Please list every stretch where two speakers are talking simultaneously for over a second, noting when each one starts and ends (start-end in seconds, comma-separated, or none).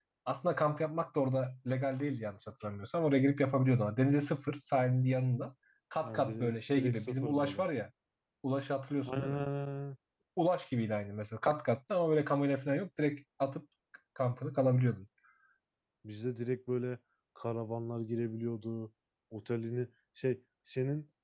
6.0-7.6